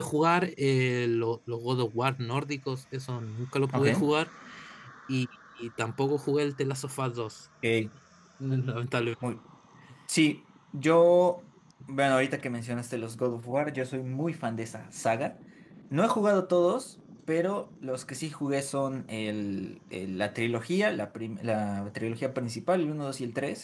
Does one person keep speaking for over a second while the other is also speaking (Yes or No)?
No